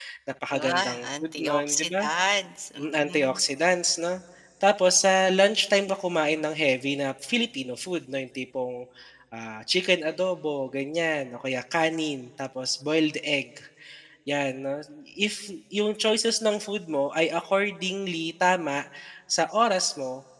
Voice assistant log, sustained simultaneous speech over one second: present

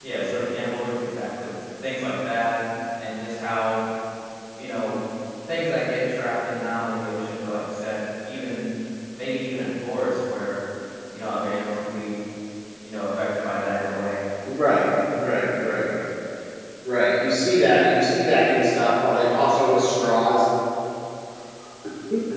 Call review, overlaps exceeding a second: none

